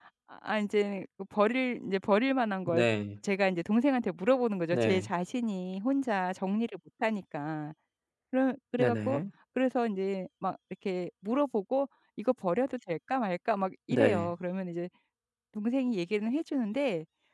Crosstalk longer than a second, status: none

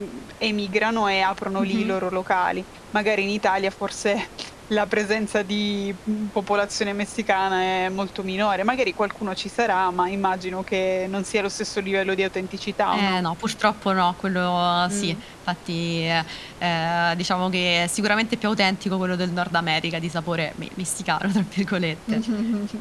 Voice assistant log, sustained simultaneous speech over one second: none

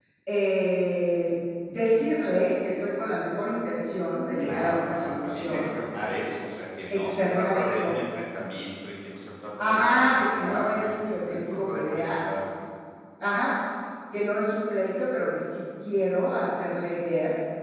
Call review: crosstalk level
present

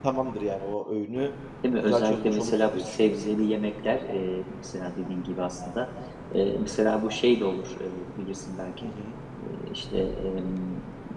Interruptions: present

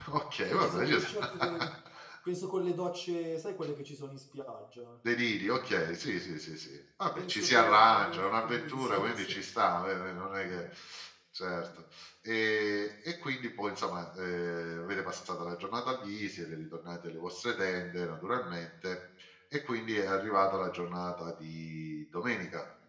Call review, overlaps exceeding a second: present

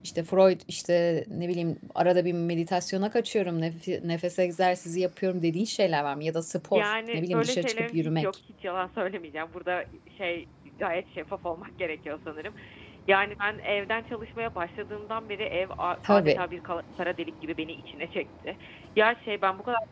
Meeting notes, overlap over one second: present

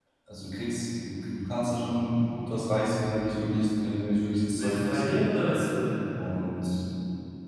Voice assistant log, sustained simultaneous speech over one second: none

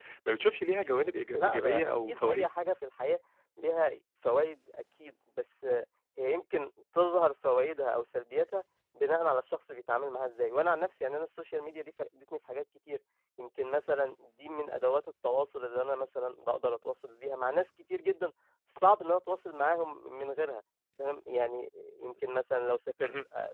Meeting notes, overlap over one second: present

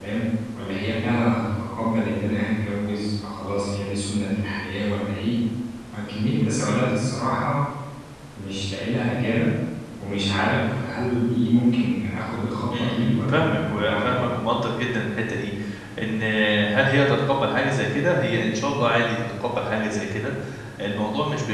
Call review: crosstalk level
present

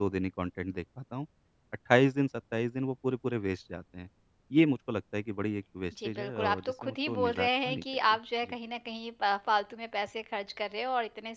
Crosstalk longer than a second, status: present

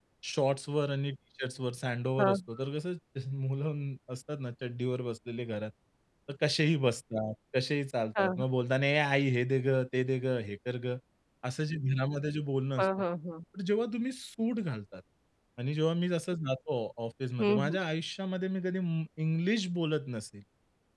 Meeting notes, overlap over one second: none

